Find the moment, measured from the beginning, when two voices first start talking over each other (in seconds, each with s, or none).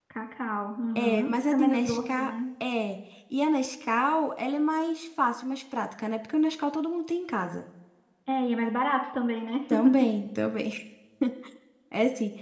1.0 s